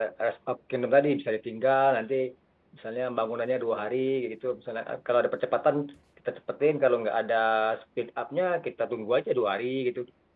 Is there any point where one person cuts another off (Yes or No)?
No